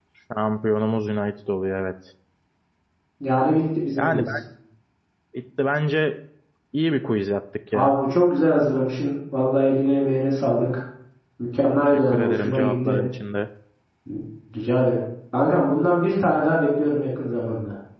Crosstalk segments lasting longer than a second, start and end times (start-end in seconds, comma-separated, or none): 11.8-13.0